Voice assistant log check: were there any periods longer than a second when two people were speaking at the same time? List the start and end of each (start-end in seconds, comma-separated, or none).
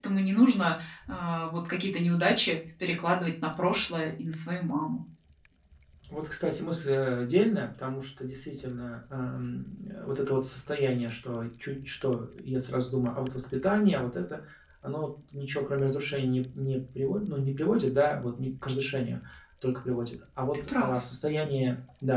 none